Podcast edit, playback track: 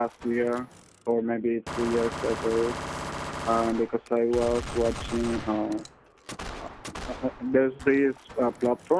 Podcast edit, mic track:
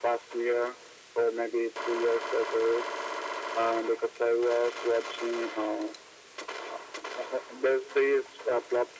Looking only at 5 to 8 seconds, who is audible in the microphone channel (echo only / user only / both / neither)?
echo only